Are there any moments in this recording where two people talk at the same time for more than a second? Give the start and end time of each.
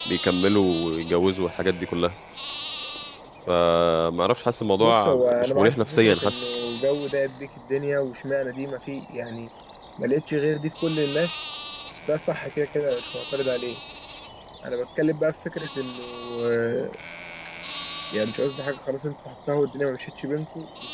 4.8-6.3

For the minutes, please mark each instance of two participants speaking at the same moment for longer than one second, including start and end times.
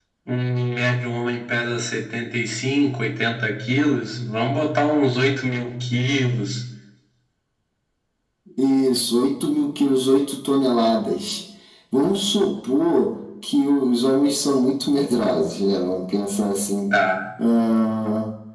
none

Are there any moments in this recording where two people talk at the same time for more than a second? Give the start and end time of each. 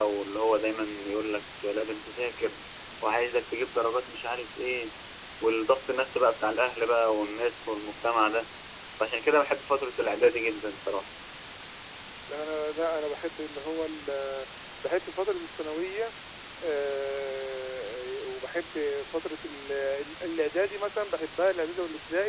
none

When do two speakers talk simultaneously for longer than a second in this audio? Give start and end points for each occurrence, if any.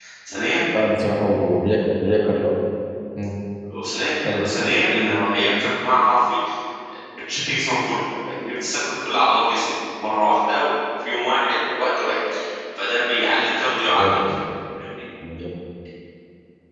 none

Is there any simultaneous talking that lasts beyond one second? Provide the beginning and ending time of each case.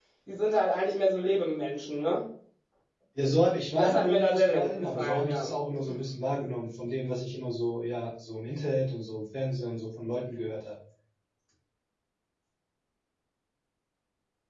3.7-5.5

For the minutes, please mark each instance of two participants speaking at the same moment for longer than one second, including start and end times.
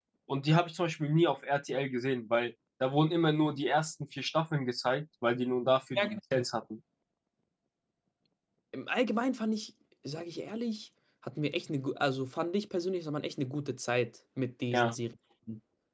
none

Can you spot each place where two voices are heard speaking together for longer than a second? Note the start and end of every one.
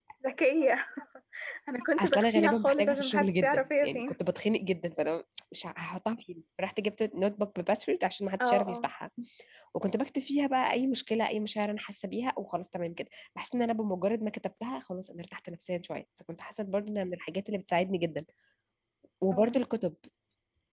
2.0-4.0

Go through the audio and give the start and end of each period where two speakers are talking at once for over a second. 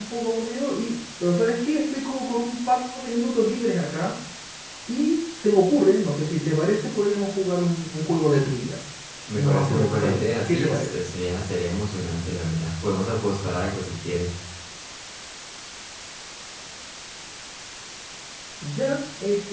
9.3-11.0

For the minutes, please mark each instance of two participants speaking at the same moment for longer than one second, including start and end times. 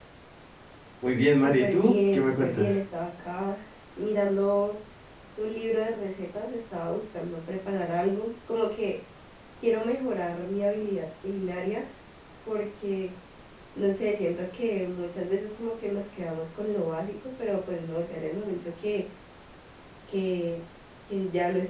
1.3-2.8

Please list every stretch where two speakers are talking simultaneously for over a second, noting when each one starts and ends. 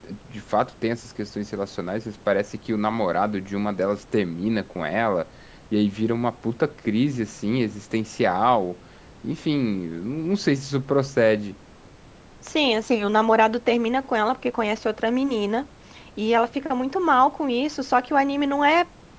none

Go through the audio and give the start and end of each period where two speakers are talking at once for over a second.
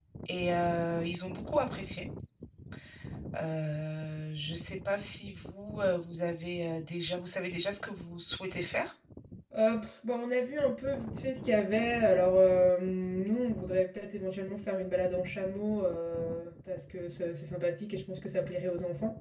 none

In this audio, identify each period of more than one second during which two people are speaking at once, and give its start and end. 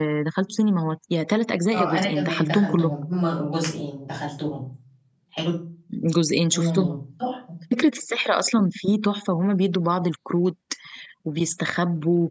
1.7-2.9

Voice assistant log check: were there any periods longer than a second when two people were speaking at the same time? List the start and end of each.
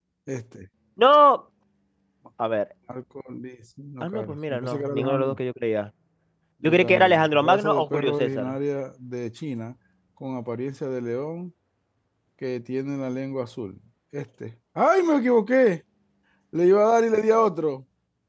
4.0-5.4, 6.6-8.6

